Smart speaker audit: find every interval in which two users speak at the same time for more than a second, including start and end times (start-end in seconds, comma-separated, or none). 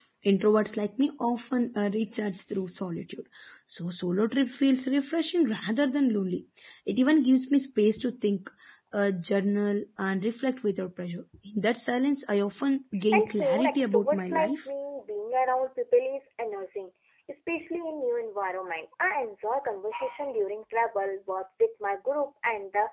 13.1-14.6